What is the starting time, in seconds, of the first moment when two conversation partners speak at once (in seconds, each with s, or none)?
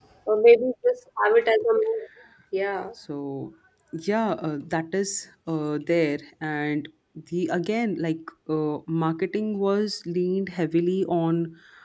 none